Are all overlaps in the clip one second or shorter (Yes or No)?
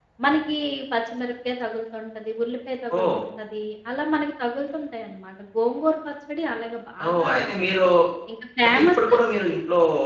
Yes